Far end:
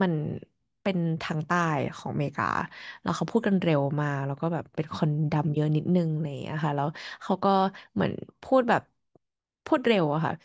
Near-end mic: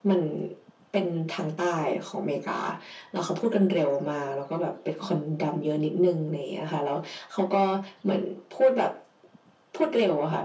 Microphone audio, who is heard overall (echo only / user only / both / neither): echo only